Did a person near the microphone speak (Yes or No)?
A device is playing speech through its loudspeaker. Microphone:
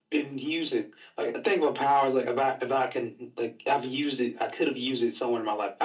No